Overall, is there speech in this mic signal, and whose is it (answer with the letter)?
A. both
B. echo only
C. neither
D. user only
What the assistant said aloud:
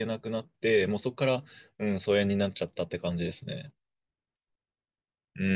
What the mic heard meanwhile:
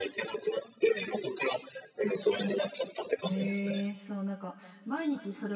A